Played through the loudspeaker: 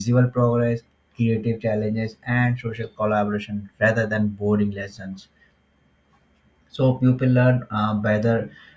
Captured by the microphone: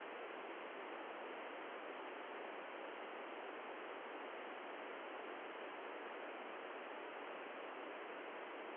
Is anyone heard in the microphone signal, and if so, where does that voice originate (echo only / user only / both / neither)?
neither